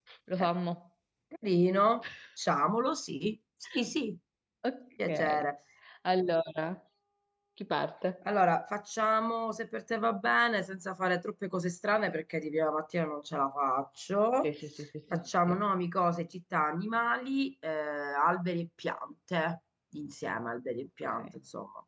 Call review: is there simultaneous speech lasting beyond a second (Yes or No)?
No